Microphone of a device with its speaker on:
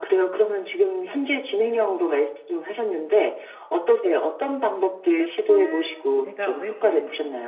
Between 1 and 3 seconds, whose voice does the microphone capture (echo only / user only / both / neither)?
echo only